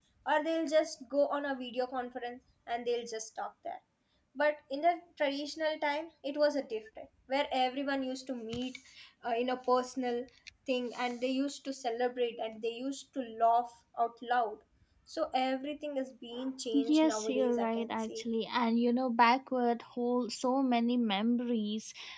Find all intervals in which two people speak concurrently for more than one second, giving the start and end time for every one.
16.7-18.2

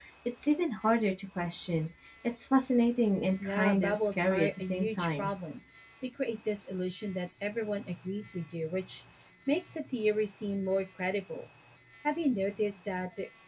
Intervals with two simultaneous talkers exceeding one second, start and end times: 3.4-5.3

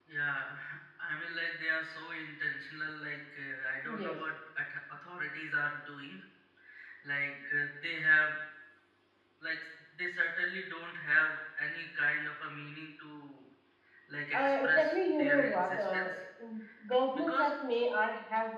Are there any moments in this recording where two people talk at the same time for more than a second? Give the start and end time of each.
14.3-16.1

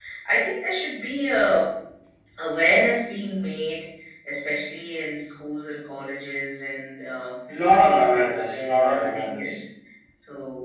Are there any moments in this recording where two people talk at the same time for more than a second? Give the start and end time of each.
7.8-9.6

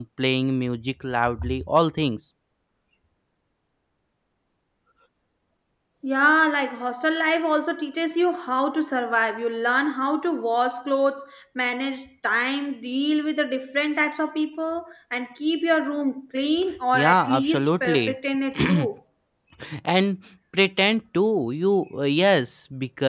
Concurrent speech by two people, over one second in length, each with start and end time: 16.9-18.1

